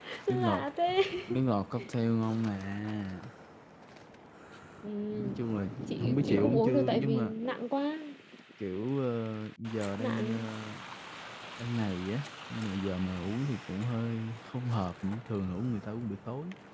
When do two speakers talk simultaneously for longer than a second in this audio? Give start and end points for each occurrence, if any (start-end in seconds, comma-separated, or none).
6.0-7.3